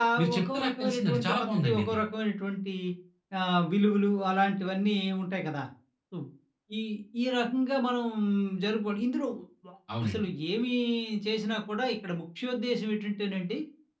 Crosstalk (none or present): present